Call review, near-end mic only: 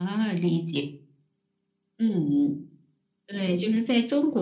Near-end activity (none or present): none